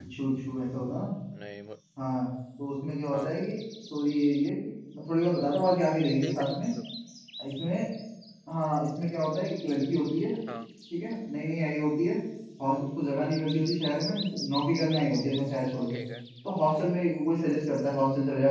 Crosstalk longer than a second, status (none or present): none